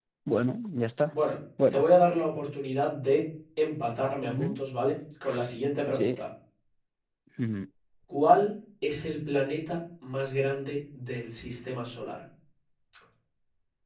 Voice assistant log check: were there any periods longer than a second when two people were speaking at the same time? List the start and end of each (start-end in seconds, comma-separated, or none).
none